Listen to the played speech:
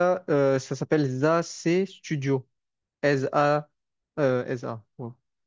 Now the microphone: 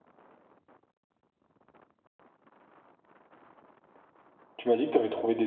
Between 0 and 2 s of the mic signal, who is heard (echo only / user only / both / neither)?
neither